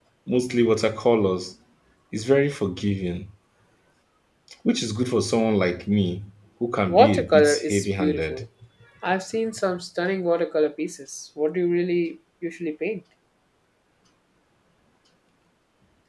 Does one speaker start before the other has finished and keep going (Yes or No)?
Yes